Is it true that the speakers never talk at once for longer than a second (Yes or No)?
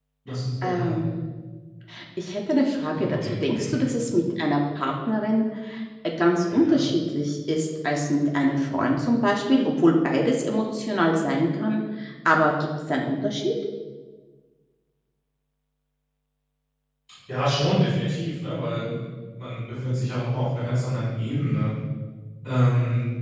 Yes